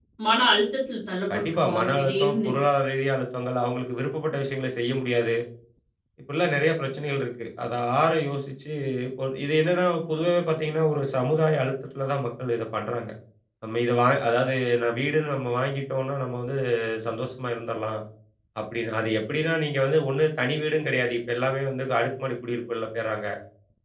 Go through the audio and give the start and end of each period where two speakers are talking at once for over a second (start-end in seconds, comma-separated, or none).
1.3-2.5